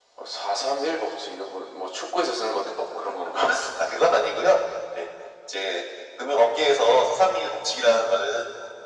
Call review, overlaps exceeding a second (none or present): none